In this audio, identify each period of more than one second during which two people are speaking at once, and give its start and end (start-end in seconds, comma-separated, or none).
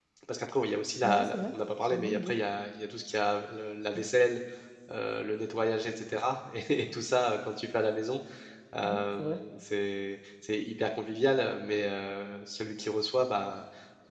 1.0-2.4